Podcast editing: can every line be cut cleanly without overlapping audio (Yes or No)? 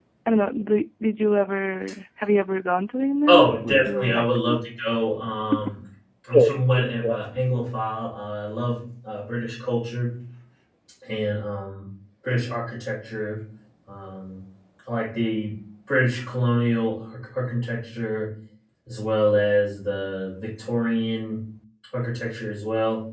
No